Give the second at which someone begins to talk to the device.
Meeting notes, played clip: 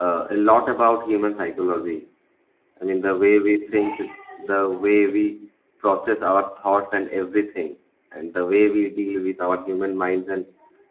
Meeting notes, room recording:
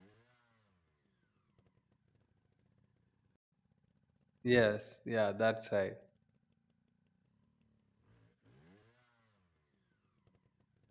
4.4 s

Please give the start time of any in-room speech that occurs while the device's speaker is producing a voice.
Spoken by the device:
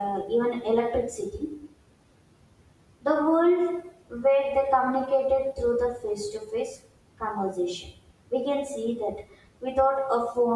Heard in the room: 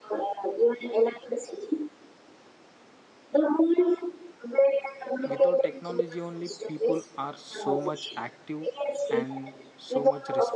5.3 s

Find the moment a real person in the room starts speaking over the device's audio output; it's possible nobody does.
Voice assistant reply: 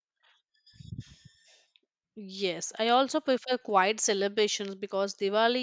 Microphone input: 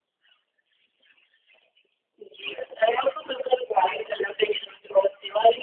none

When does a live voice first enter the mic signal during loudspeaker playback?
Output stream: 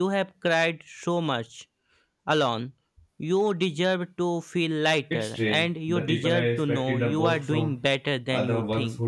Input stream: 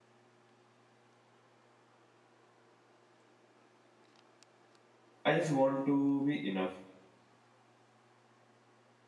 5.2 s

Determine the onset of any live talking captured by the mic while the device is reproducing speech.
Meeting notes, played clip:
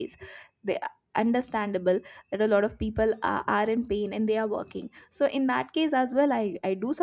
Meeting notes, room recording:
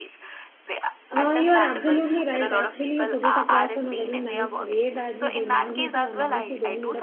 1.1 s

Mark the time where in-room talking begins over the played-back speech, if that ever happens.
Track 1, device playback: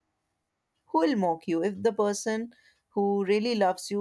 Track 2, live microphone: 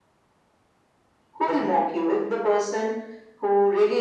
none

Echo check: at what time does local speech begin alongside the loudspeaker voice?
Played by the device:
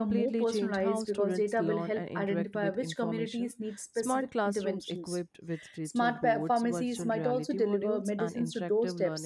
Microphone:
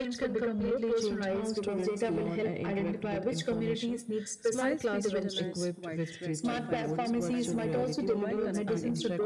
4.5 s

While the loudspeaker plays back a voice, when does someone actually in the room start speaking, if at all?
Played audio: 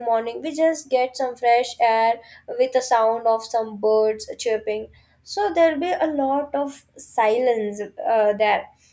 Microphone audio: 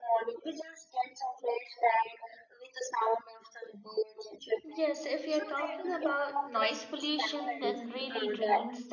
4.6 s

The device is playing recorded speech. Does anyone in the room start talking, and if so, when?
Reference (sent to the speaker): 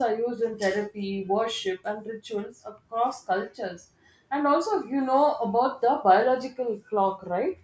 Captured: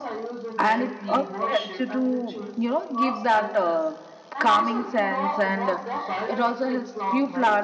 0.6 s

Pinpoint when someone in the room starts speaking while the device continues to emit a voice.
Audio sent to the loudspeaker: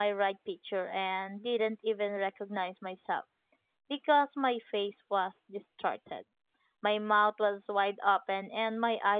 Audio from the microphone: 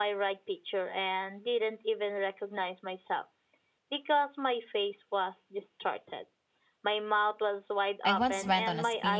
8.0 s

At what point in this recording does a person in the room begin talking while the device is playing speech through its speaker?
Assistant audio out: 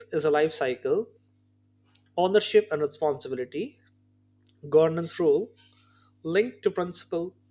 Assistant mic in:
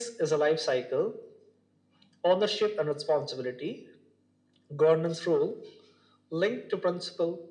none

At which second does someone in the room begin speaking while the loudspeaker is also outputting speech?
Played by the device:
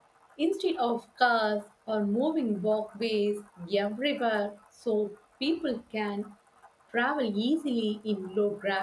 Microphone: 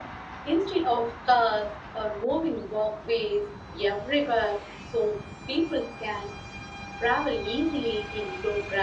none

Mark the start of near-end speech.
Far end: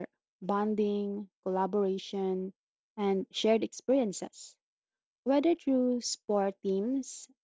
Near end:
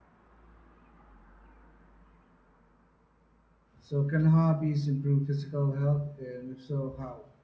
3.8 s

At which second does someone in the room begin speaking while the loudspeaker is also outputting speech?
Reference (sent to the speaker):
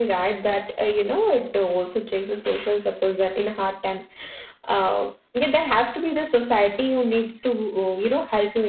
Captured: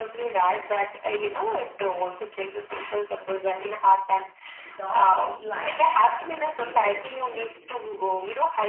4.6 s

